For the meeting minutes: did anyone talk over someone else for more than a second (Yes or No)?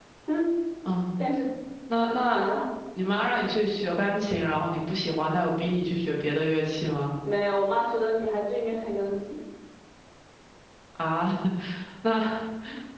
No